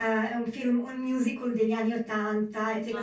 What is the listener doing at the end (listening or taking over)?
listening